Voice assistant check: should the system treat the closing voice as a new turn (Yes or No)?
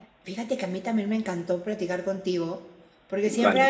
No